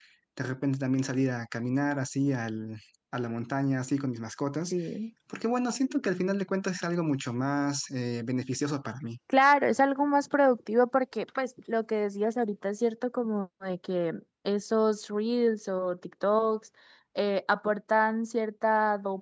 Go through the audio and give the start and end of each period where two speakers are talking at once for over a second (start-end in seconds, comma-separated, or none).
none